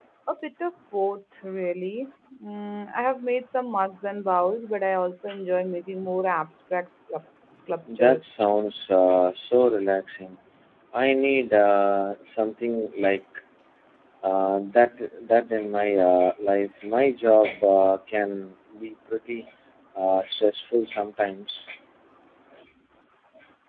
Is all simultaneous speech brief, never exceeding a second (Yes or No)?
Yes